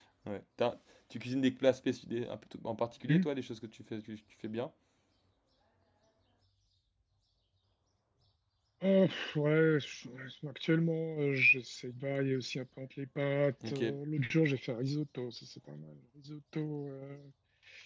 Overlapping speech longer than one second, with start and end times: none

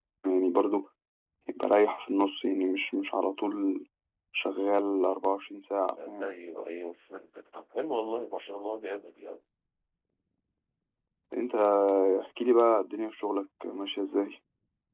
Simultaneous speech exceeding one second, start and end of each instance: none

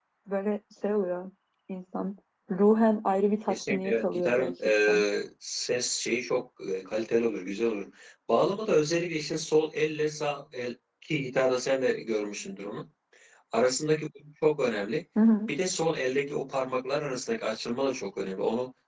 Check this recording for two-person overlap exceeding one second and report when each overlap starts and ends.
3.5-5.0

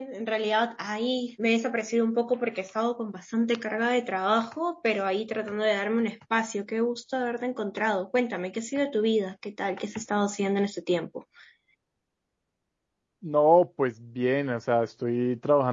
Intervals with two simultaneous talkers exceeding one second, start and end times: none

